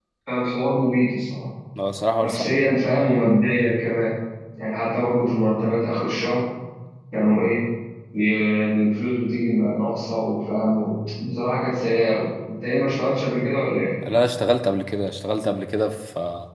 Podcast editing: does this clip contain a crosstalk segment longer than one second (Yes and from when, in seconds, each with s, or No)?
No